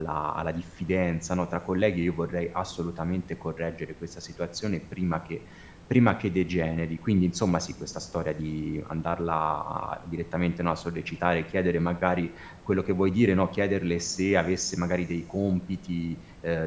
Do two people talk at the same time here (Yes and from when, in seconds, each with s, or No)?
No